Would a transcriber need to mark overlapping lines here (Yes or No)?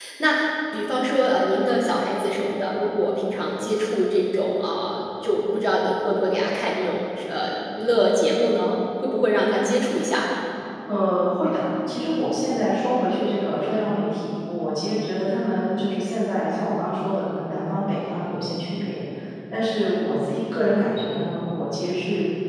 No